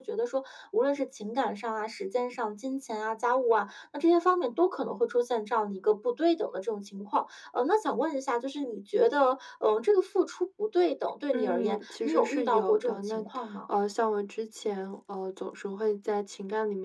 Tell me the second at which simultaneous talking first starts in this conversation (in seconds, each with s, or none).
11.3 s